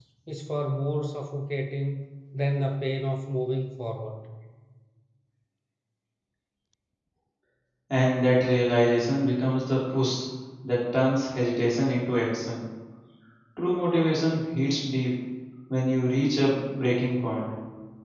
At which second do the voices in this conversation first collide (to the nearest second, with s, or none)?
none